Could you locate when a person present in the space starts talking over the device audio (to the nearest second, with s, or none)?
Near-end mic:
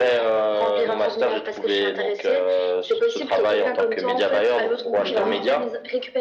5 s